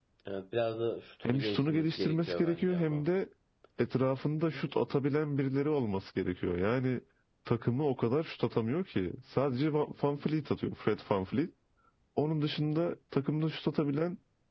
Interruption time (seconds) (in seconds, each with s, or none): 1.2 s